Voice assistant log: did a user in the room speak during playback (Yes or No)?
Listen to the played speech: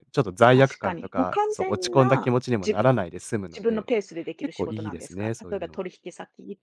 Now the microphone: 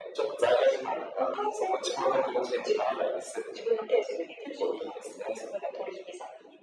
No